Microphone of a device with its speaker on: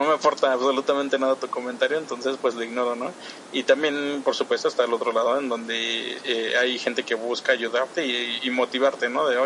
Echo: present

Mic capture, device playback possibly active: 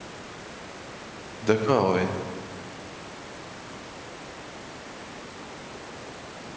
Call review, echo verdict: none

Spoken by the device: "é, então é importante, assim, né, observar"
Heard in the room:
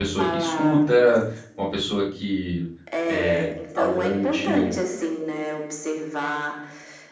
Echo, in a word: present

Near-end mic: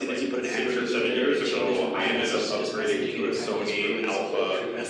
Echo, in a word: present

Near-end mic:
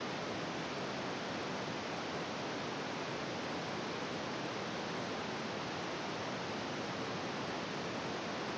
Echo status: none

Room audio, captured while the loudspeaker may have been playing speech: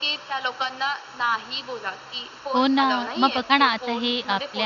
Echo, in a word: present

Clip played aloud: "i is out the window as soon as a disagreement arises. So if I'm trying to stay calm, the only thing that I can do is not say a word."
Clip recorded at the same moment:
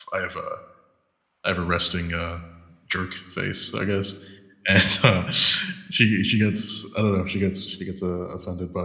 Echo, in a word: none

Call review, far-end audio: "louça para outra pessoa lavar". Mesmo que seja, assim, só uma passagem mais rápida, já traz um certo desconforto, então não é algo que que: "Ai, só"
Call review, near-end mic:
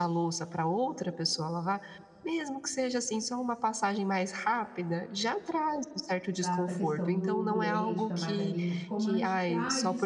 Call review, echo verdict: present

